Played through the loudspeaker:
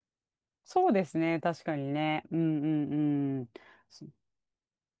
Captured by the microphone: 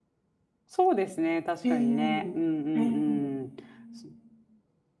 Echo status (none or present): present